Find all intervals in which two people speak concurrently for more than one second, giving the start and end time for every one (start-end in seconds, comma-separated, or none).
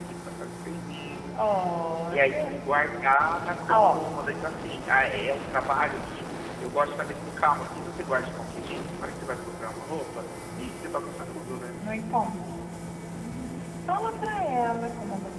none